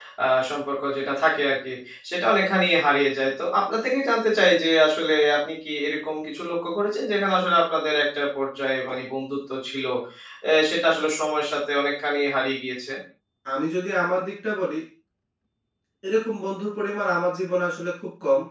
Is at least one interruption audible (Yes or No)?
No